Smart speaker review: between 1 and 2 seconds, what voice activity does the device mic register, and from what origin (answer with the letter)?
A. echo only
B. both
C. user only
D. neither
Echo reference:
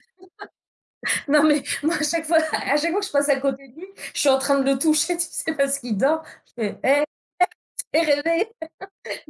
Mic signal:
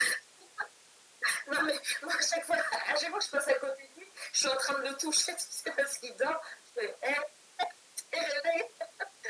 A